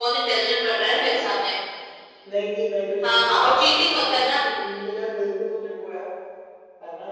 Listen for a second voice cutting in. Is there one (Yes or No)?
Yes